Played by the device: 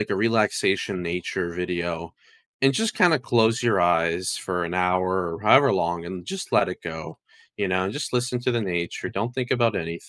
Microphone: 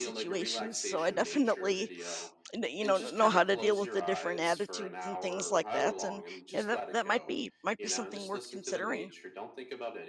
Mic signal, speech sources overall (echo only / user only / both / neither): both